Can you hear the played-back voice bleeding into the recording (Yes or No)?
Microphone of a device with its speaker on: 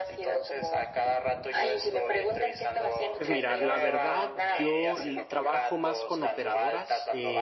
Yes